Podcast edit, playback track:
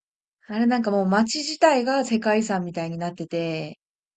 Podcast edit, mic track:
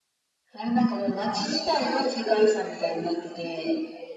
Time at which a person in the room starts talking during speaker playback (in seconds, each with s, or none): none